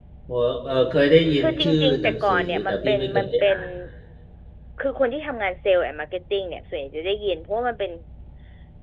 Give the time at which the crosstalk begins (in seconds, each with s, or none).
1.4 s